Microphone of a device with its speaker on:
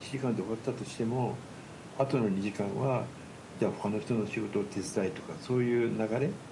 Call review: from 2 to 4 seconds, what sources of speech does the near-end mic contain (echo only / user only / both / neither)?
echo only